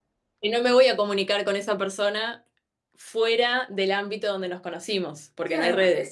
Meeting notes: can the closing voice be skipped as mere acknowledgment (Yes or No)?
No